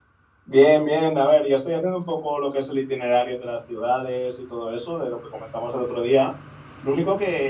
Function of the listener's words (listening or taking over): listening